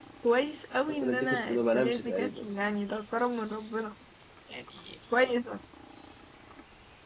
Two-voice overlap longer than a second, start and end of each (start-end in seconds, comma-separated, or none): 0.9-2.5